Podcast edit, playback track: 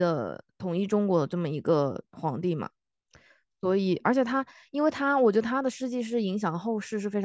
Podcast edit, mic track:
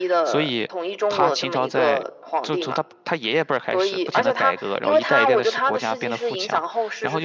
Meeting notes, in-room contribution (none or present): present